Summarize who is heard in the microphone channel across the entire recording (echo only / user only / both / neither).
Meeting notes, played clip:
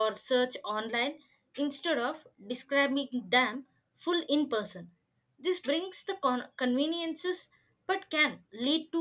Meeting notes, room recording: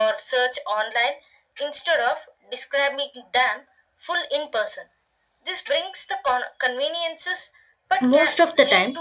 both